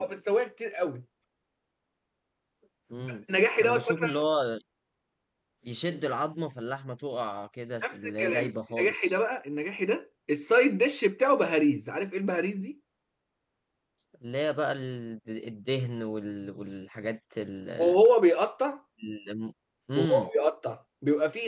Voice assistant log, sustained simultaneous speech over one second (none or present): present